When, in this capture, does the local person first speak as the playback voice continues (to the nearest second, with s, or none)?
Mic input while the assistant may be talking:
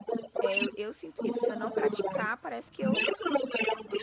0 s